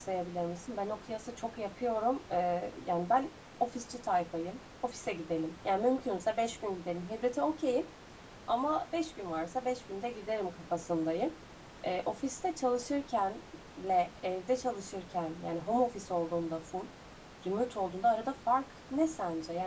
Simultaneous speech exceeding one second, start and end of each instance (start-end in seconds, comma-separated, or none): none